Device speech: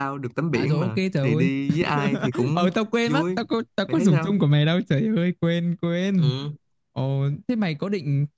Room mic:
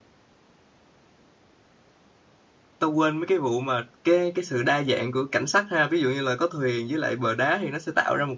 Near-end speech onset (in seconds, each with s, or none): 2.8 s